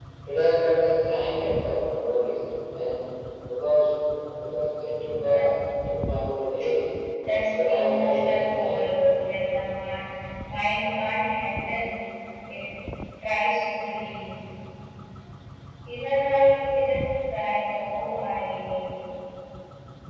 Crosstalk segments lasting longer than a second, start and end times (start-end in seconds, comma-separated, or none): 7.5-8.9